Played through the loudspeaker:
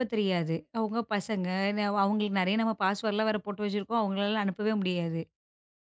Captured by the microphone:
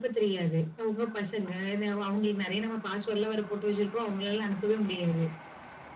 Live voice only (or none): none